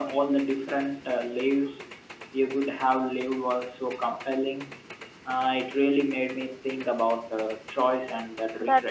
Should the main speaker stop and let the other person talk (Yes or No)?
Yes